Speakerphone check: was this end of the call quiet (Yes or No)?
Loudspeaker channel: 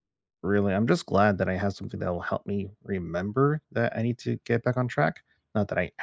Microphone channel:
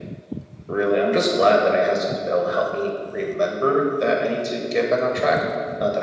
Yes